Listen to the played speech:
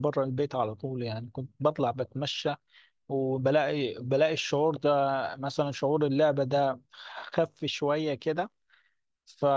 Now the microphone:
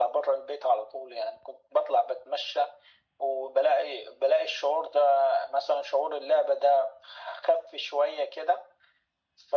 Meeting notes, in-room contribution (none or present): none